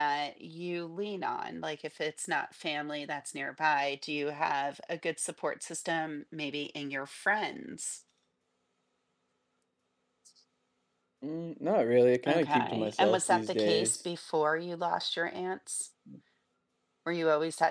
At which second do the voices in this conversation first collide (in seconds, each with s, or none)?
12.3 s